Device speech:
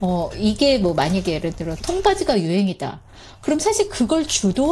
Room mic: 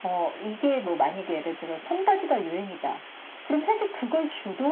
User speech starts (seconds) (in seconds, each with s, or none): none